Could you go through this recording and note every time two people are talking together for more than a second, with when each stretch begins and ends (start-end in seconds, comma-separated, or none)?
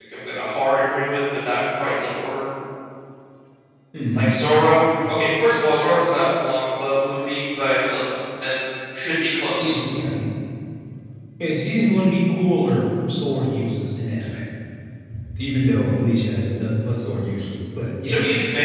none